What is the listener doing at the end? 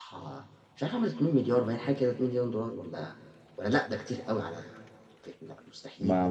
taking over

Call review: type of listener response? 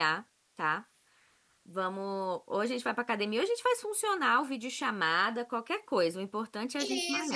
taking over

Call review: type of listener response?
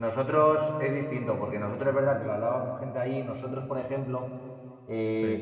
listening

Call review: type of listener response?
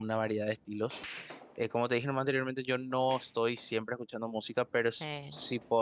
listening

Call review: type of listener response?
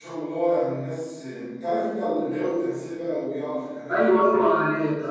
taking over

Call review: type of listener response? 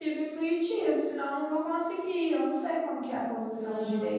taking over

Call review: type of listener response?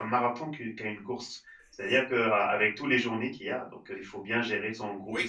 taking over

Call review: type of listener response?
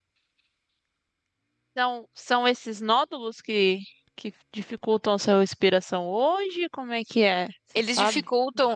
taking over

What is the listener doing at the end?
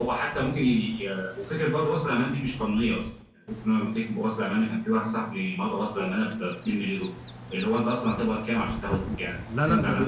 taking over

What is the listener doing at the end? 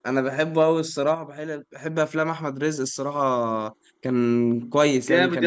taking over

